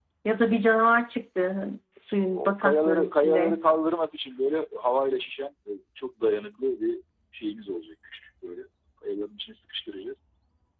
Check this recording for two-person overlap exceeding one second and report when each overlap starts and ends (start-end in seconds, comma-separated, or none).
2.3-3.6